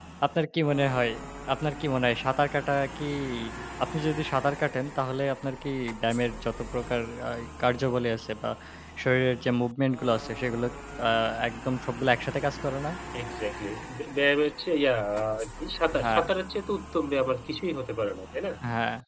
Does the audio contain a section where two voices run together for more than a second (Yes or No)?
No